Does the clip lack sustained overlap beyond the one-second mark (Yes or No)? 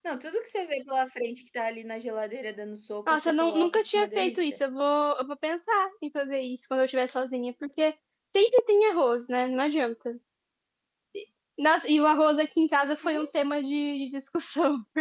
No